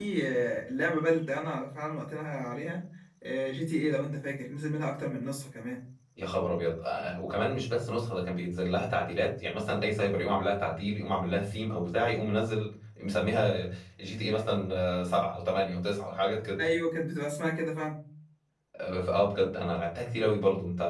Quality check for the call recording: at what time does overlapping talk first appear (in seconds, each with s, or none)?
none